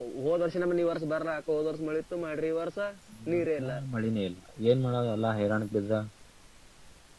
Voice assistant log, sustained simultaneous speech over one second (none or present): none